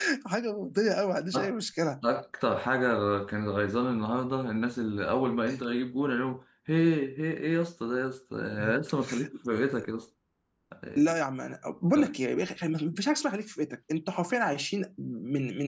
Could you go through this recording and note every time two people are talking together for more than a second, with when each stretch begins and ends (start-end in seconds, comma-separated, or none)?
none